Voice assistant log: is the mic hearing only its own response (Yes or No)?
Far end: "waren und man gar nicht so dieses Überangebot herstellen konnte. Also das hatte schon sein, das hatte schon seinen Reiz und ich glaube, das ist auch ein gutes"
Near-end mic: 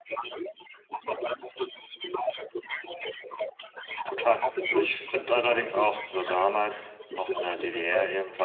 No